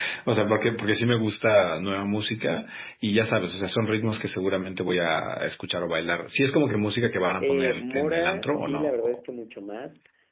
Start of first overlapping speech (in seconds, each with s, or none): 7.4 s